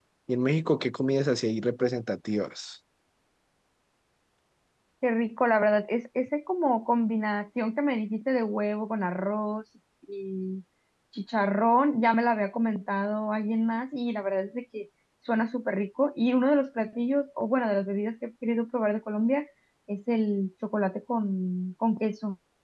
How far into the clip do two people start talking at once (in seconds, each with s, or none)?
none